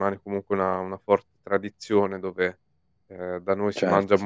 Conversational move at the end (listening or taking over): listening